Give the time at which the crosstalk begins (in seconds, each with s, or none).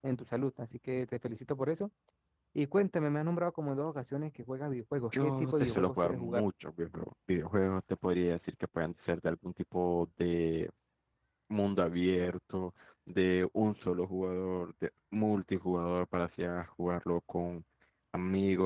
5.1 s